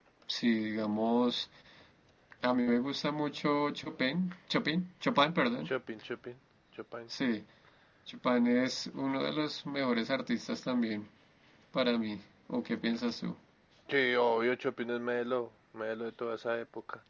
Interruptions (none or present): none